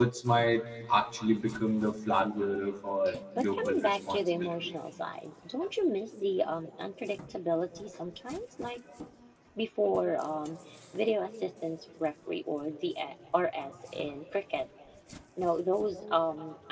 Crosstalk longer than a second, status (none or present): present